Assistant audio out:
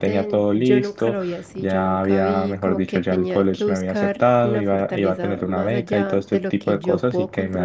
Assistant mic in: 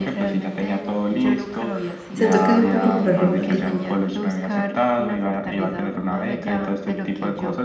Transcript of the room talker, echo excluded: siento que es un poco problemático.

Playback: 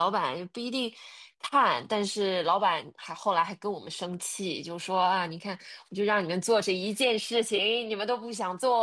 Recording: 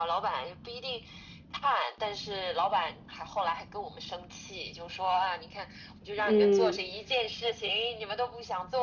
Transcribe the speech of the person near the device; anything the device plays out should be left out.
嗯

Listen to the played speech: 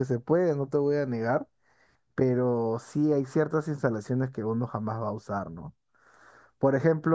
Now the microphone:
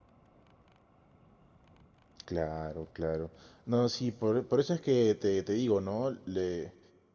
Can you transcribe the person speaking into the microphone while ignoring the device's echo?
claro, claro. No, sí, por, por eso es que te, te digo, ¿no? Le,

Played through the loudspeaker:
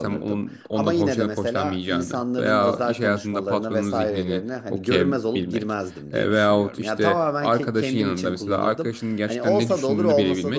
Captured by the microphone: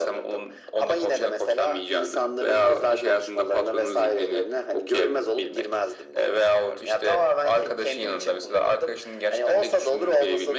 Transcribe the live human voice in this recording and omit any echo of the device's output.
none

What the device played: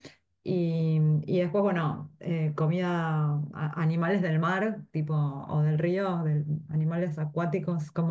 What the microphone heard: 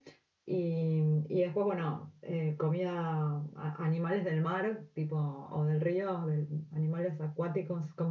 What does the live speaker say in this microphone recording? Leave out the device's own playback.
none

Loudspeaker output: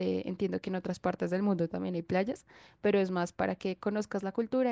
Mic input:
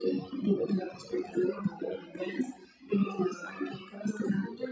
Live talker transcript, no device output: none

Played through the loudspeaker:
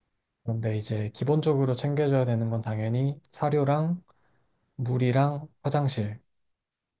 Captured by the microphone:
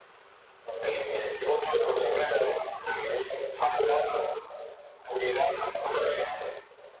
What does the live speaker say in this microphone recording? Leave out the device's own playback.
none

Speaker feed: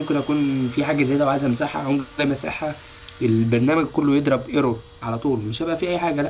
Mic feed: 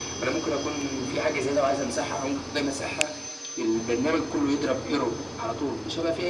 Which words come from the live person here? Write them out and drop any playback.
none

